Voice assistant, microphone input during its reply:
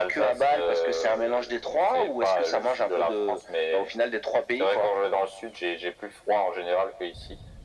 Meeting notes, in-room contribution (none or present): none